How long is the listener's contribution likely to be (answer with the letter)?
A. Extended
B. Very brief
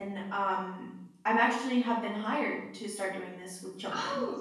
A